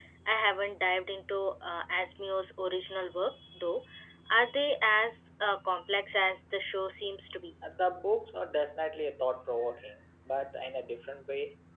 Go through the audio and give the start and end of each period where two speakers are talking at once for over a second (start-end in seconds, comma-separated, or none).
none